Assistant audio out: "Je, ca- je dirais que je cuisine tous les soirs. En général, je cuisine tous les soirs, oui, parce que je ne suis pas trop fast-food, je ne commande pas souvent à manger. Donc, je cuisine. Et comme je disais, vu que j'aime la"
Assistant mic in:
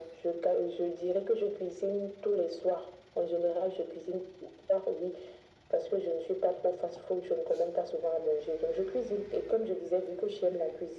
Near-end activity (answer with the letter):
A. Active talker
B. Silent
B